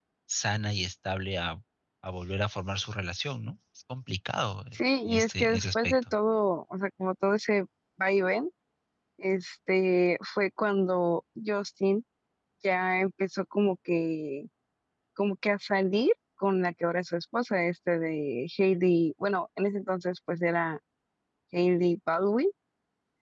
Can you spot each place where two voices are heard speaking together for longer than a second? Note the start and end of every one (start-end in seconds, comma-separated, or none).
4.7-6.1